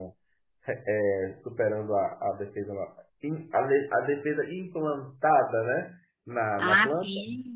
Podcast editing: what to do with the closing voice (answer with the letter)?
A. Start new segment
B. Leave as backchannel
A